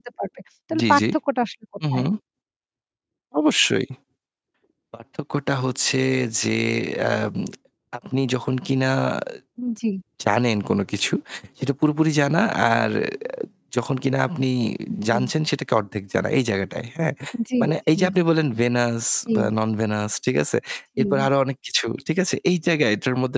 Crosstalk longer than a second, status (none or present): none